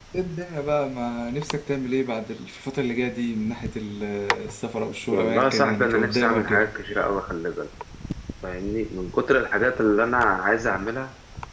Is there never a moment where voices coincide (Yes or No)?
No